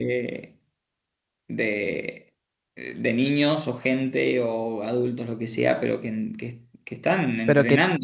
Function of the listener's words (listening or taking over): taking over